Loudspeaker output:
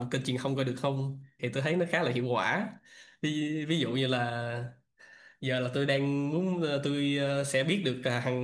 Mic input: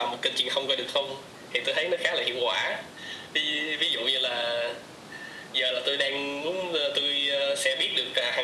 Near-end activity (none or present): none